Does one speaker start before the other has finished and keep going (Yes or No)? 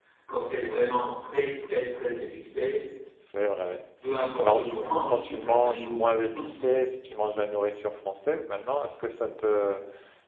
Yes